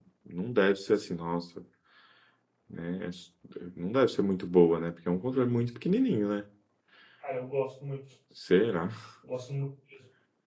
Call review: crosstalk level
none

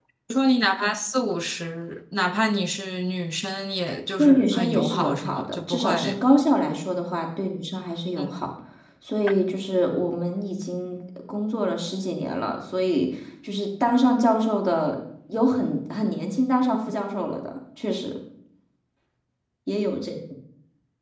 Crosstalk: present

